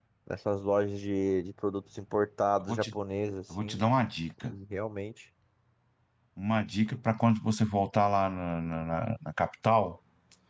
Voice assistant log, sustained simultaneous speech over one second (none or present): none